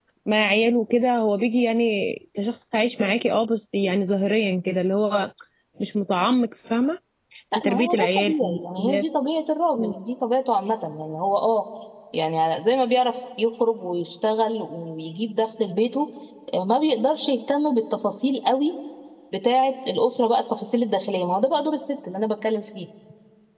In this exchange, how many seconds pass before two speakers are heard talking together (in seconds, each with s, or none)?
7.5 s